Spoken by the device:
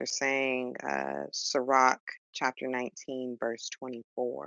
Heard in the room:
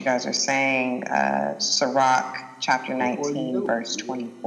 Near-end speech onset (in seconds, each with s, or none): 3.0 s